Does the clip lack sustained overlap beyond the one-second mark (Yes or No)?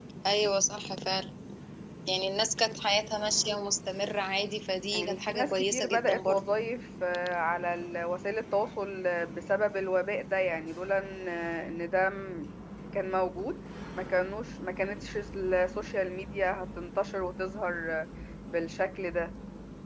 No